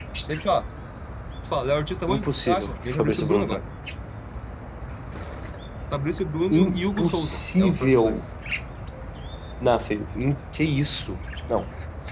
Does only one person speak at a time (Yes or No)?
No